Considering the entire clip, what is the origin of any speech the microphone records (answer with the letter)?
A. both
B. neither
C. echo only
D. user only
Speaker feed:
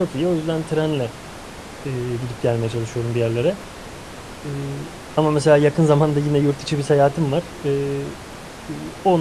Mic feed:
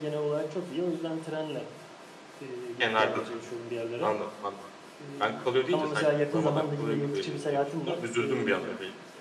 A